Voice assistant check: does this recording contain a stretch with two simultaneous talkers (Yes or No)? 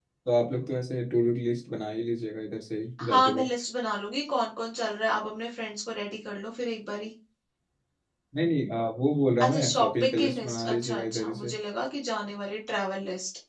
Yes